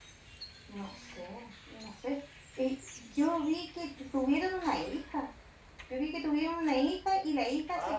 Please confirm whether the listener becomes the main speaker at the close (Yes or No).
No